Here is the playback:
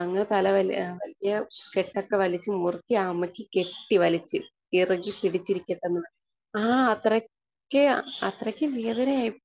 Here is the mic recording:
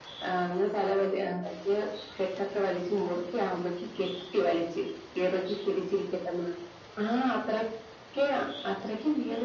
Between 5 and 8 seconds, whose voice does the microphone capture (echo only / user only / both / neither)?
echo only